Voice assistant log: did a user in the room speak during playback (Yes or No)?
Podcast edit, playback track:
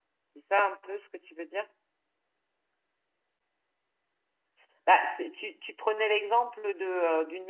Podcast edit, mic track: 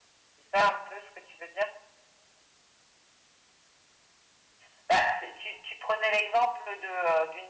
No